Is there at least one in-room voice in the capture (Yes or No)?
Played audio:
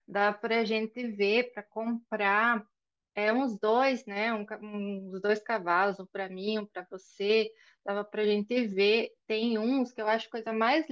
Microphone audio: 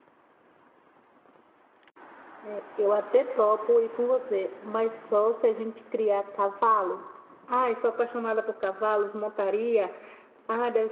Yes